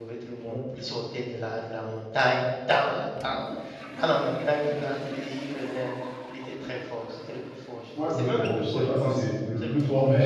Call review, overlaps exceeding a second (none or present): present